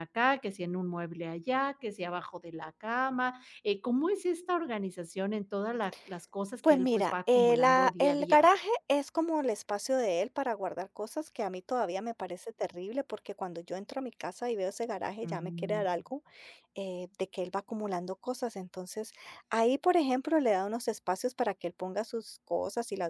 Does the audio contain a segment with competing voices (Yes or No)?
Yes